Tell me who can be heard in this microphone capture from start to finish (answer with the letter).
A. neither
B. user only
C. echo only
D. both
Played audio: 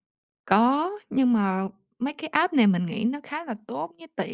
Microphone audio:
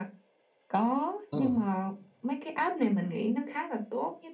D